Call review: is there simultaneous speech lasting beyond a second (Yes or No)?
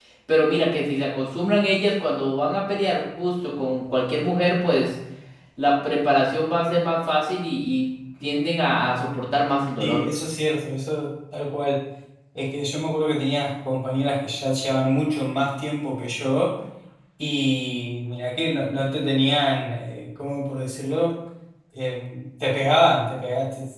No